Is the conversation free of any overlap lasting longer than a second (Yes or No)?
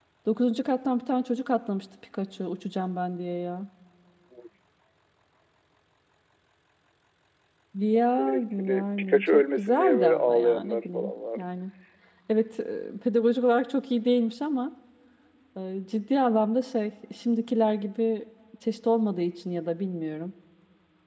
No